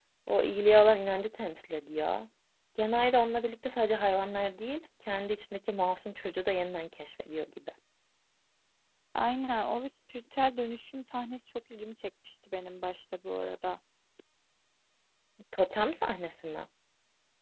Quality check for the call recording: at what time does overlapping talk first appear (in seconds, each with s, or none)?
none